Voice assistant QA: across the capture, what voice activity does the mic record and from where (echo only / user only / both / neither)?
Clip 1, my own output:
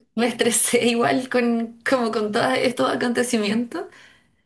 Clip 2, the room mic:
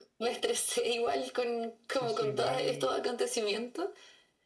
both